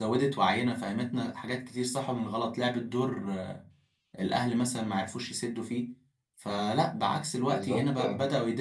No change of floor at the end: Yes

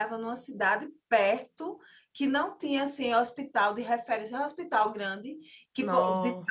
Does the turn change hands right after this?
No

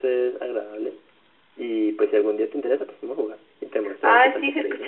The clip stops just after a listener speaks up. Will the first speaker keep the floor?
No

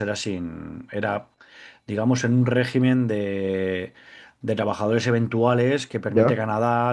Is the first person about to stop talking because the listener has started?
No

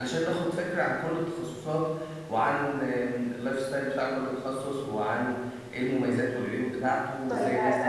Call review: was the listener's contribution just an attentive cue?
No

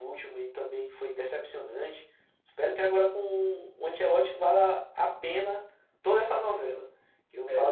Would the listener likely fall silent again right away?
Yes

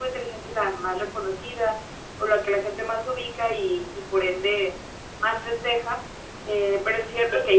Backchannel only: Yes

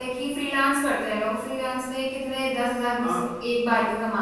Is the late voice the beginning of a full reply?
No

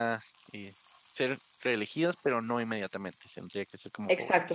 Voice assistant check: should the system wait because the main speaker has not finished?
No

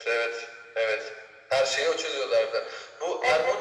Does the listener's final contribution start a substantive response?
No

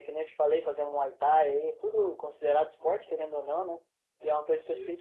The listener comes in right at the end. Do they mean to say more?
No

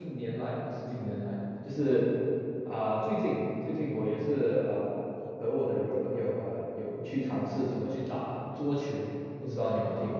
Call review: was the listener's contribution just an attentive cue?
No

